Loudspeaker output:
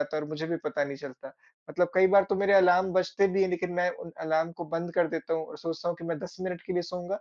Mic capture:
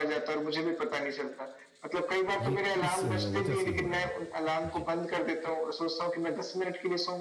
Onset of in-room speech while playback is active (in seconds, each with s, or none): 2.4 s